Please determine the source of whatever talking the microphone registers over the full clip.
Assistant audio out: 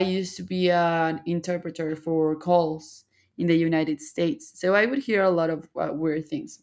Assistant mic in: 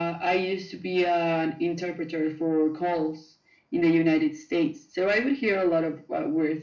echo only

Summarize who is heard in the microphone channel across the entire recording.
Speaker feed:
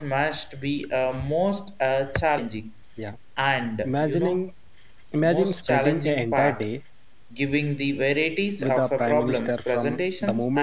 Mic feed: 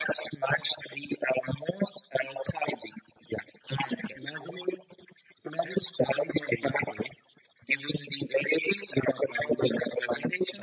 echo only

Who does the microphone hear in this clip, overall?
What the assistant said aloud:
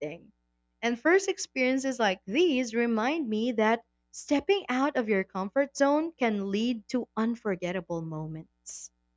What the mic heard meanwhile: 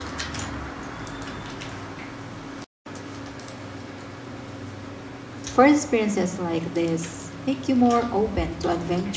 user only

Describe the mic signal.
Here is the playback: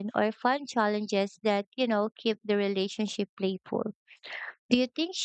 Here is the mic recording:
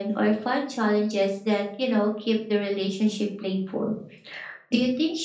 echo only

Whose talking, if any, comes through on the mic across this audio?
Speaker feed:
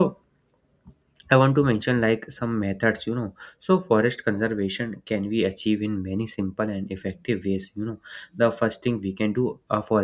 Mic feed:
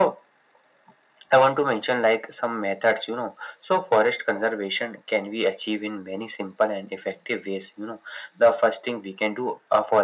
echo only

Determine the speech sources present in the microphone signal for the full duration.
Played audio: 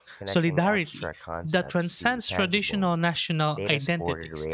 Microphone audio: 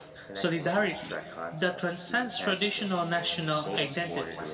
both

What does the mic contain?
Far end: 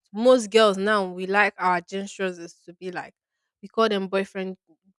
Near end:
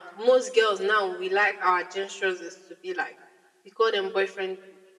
echo only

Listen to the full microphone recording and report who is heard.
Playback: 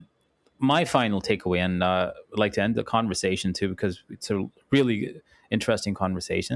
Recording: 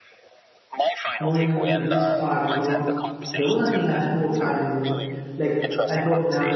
both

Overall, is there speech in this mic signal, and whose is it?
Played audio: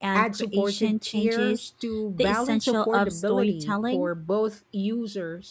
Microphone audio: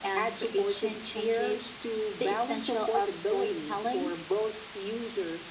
echo only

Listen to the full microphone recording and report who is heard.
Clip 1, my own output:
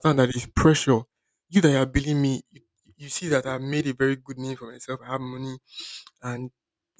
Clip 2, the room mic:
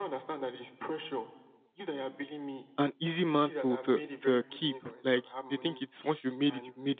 both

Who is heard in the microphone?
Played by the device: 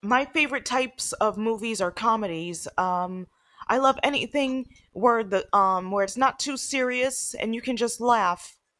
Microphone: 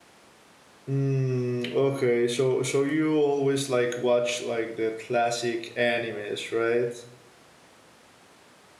user only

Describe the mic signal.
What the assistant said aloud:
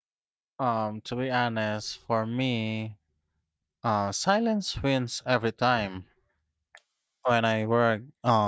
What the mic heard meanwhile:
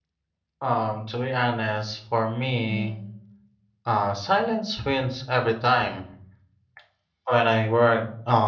both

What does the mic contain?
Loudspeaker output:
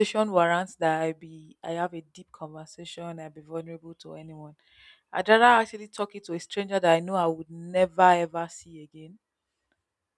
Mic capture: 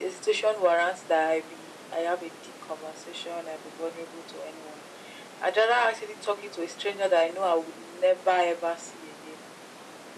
echo only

